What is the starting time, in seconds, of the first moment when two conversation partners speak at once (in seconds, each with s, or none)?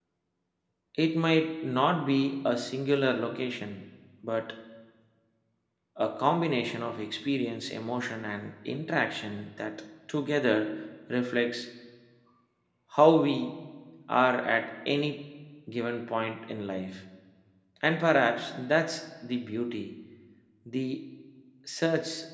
none